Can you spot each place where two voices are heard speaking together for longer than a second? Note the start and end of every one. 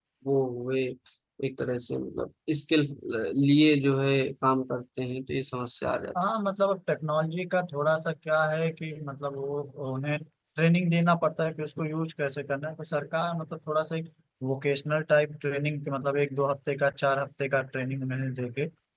none

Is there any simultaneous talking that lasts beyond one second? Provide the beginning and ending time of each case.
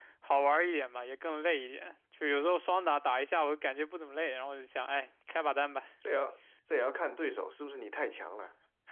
none

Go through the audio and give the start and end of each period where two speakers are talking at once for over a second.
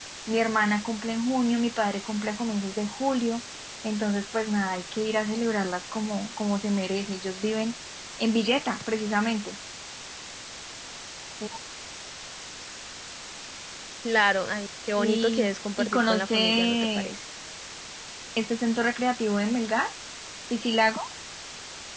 15.0-17.2

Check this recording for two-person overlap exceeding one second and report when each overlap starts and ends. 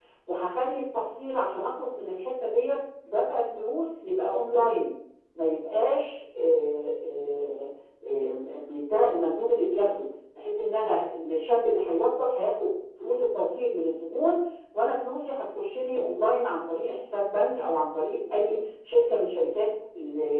none

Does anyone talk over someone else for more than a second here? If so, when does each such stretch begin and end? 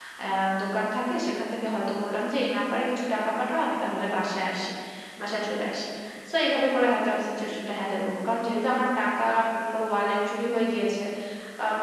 none

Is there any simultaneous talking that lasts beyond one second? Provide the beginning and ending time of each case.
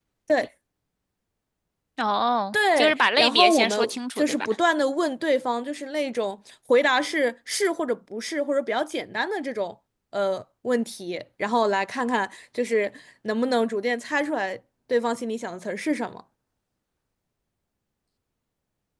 2.5-4.5

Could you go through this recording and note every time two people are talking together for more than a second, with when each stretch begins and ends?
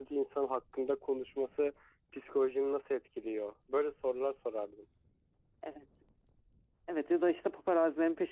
none

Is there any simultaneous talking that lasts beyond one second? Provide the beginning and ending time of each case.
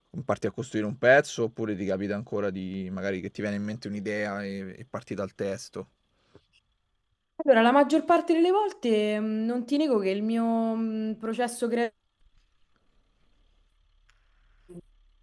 none

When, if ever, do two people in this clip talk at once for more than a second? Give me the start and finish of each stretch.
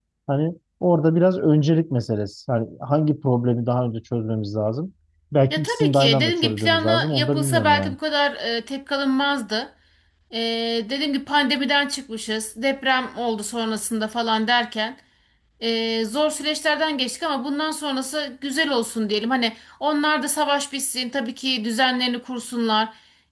5.5-8.0

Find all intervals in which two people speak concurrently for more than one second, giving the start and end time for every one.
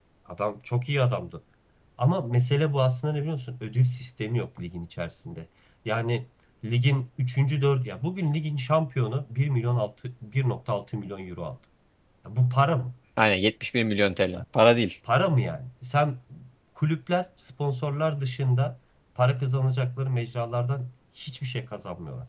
none

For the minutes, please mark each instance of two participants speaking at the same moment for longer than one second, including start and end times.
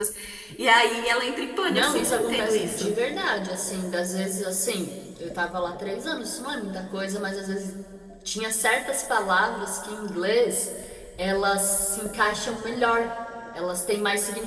1.7-2.9

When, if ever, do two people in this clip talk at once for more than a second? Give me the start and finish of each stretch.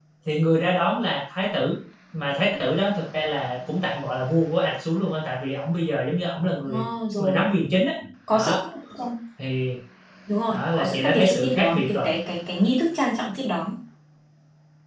10.5-12.1

